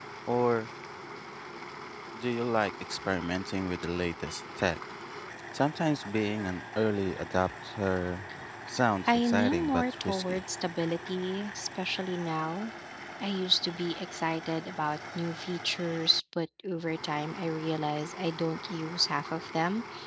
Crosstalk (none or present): present